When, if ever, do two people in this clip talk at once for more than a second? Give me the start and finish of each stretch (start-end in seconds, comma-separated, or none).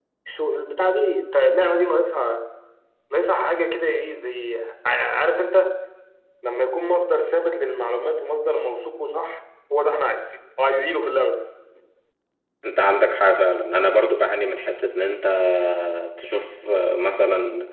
none